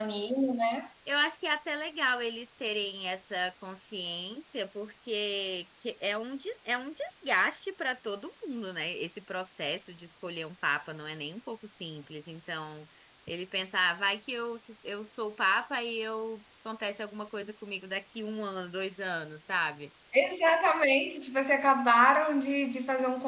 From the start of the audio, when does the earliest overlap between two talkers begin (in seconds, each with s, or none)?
none